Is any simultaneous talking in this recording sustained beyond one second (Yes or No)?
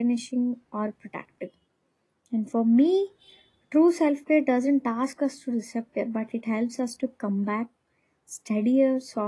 No